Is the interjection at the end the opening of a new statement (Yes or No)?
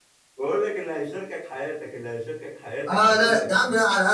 Yes